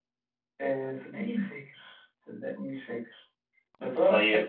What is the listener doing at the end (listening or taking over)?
listening